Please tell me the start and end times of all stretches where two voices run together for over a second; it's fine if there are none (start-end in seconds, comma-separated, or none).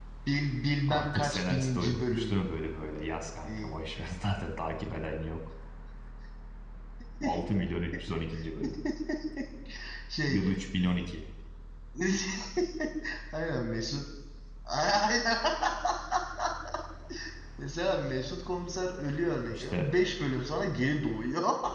0.9-2.4